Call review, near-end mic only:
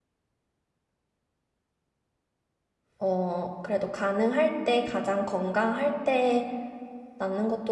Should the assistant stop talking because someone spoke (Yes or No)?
Yes